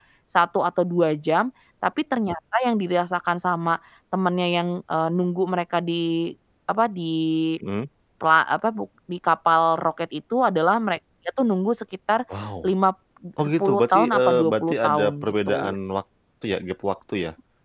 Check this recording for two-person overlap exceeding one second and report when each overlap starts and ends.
13.4-15.7

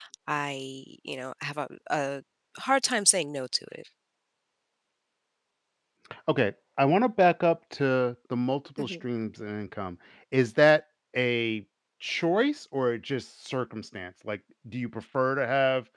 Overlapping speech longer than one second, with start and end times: none

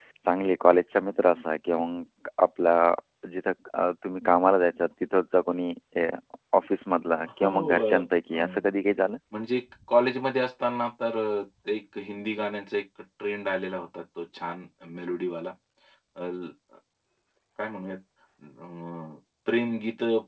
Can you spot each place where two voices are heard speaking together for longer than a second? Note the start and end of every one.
7.4-8.7

